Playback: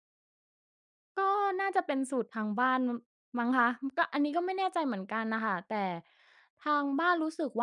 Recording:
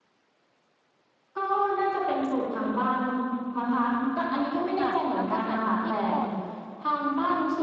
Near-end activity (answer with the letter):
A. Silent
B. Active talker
B